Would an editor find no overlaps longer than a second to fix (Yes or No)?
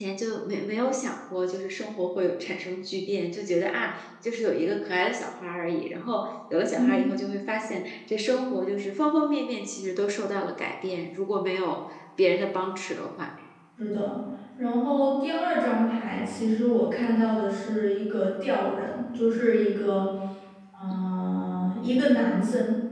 Yes